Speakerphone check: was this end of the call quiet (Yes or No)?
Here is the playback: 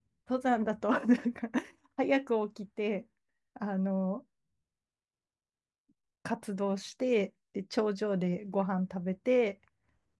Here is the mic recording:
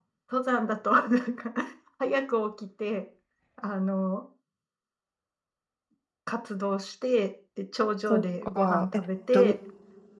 No